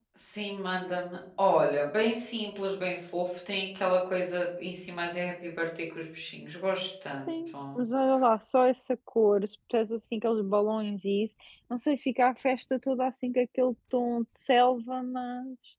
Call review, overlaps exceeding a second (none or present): none